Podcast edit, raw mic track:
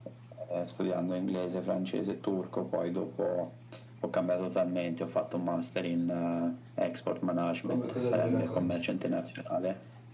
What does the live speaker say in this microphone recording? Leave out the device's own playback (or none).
come, cosa mi racconti?